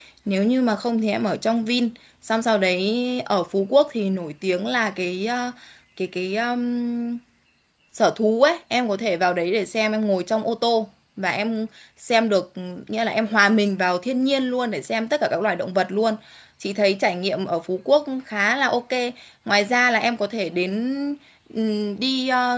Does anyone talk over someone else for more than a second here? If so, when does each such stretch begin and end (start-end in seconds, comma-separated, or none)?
none